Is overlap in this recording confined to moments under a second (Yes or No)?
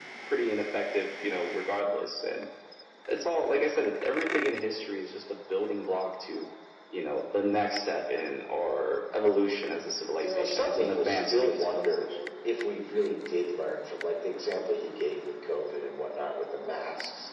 No